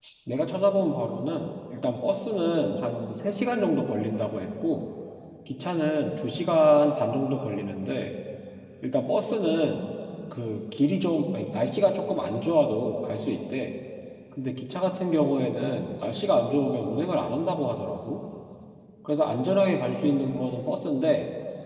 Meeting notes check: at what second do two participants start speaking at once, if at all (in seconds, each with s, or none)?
none